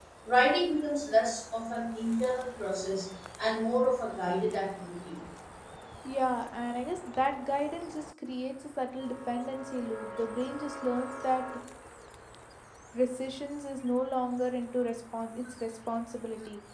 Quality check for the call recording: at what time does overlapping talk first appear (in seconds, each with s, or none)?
none